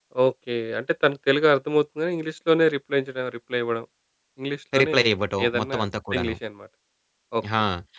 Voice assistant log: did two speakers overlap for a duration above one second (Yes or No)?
No